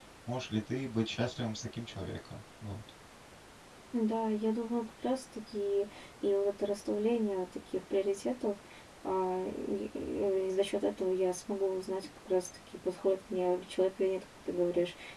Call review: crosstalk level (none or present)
none